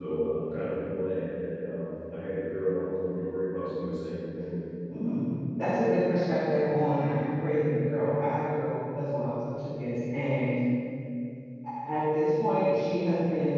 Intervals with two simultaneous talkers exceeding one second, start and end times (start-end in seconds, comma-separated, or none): none